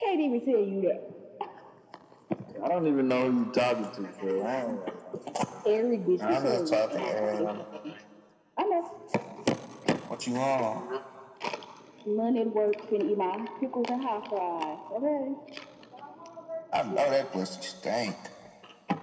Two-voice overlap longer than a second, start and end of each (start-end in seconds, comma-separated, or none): 6.3-7.6